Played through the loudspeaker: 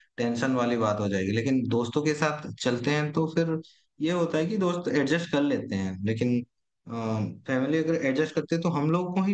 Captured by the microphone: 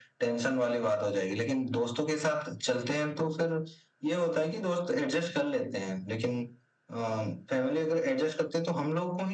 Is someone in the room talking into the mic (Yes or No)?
No